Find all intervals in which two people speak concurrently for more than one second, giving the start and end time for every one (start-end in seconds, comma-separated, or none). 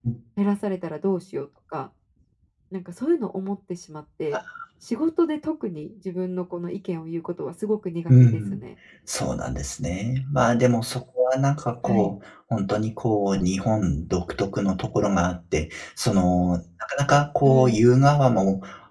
none